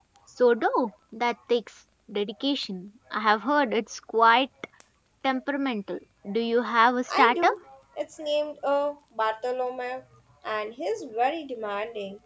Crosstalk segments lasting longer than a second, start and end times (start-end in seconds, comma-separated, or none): none